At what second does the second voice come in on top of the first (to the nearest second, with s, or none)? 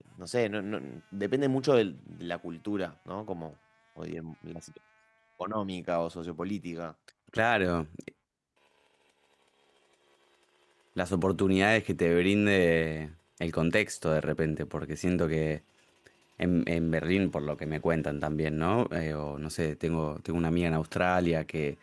none